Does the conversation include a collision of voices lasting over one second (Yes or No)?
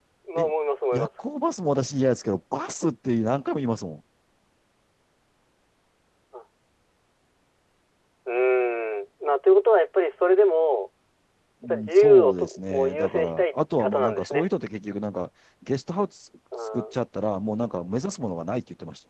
Yes